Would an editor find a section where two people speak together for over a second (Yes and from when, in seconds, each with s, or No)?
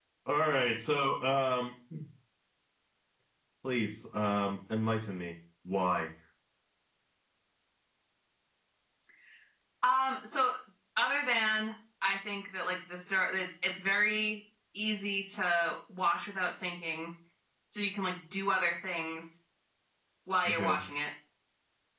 No